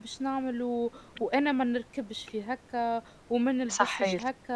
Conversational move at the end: listening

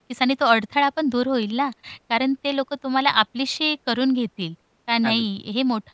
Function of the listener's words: listening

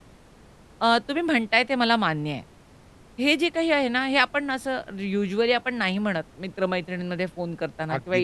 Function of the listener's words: listening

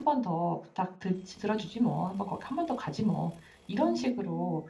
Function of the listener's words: listening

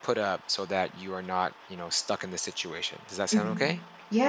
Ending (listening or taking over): taking over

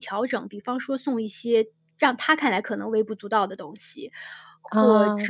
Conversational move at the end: listening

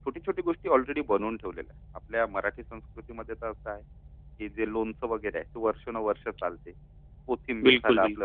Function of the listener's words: listening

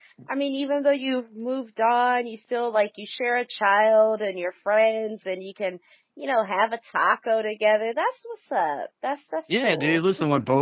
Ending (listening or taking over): taking over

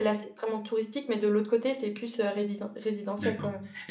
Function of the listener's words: taking over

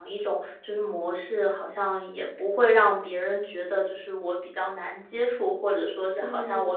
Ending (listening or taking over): listening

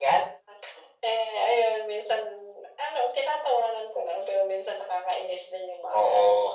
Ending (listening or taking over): taking over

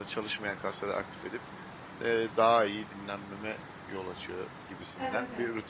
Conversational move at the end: taking over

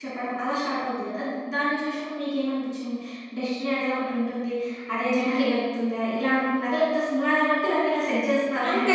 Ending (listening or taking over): taking over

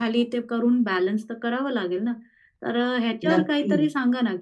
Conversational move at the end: listening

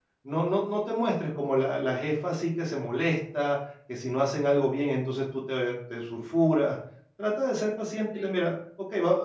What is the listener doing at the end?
listening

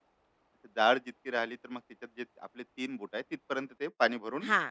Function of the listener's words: taking over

